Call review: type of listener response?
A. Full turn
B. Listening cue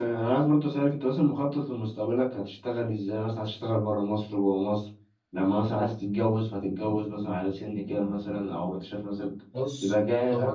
A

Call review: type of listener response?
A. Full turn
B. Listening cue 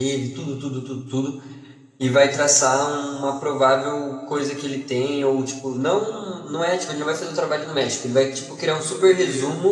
B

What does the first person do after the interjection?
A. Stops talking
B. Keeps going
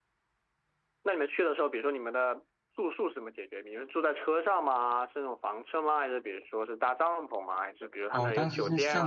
A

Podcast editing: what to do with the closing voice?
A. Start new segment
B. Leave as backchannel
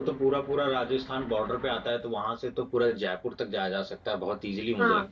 A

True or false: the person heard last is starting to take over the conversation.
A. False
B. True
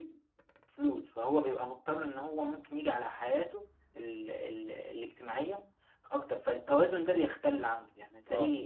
A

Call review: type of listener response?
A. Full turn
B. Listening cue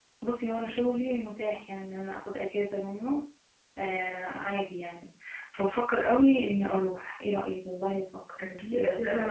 A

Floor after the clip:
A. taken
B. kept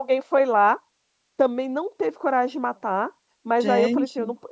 B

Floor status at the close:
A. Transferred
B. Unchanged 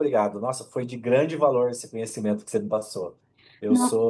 B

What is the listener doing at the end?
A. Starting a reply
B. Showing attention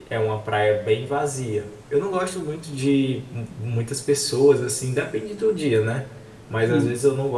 B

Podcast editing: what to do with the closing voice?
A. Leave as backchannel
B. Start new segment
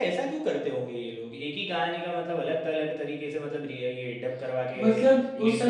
B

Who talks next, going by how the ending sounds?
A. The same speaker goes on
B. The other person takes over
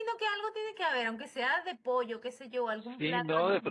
B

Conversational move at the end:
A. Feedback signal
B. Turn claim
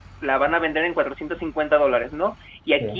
A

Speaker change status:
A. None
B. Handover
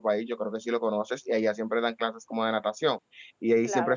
A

